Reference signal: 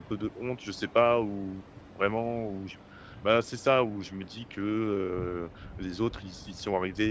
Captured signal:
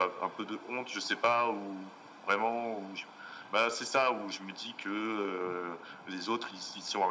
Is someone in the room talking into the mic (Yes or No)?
No